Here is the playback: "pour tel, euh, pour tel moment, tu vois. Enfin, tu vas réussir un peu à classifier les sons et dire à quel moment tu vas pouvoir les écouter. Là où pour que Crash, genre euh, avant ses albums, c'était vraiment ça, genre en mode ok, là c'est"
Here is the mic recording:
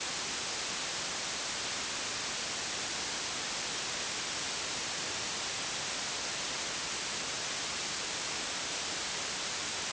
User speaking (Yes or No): No